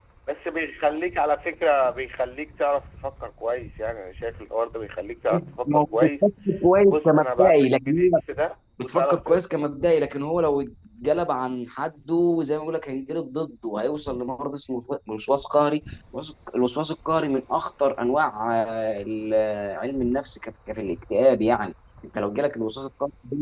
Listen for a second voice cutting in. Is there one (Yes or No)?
Yes